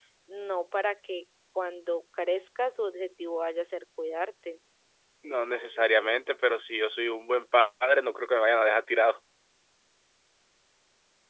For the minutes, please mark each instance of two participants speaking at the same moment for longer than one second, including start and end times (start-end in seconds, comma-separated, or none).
none